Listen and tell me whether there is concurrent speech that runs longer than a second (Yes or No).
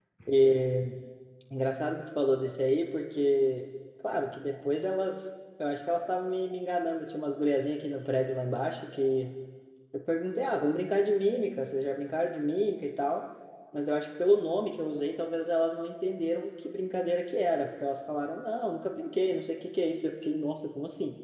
No